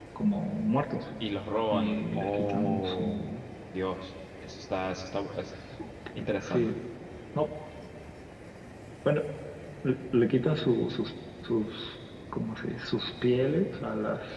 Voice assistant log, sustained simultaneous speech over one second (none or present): present